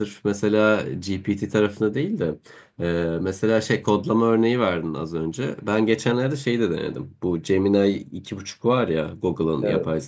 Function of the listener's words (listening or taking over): listening